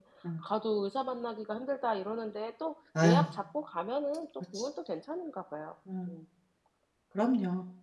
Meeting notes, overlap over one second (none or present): none